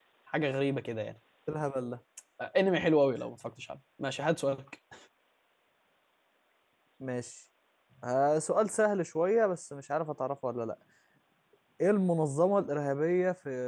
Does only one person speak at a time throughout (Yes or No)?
Yes